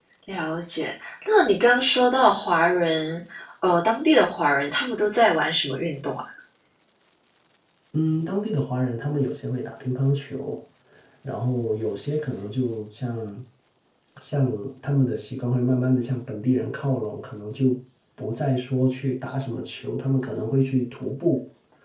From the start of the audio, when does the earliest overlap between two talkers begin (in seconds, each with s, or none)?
none